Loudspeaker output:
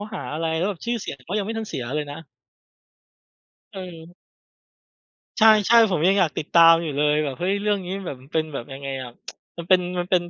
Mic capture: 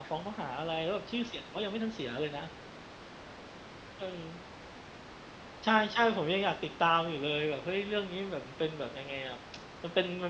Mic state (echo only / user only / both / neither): echo only